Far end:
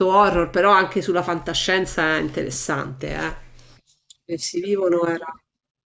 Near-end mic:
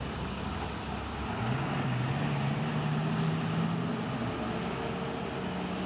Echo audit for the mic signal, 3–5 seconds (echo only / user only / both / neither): neither